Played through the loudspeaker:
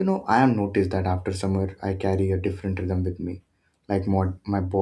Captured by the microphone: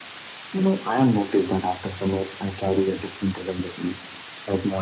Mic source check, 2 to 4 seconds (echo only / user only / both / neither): echo only